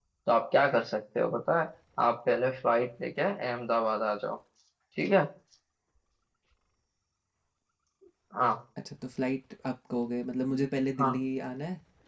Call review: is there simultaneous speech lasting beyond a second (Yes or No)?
No